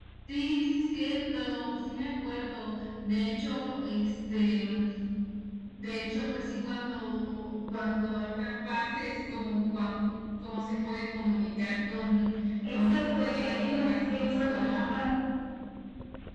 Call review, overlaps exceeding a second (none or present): present